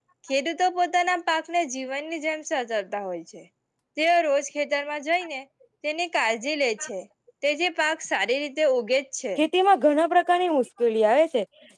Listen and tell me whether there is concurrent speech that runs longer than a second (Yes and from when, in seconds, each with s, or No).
No